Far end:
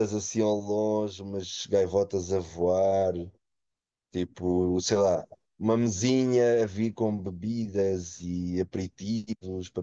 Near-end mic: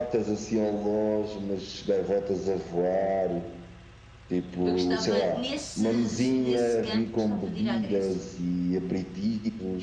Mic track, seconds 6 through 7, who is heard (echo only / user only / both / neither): both